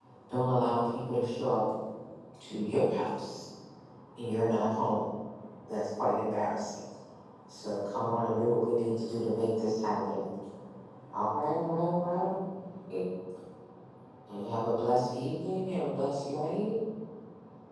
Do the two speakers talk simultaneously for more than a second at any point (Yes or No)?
No